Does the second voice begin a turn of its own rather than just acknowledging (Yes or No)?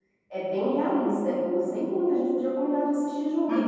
Yes